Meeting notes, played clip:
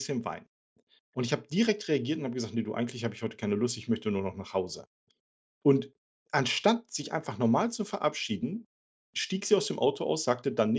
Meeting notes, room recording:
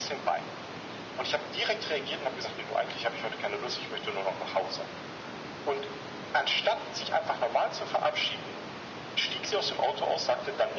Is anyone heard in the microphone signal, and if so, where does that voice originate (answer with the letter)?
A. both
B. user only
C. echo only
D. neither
C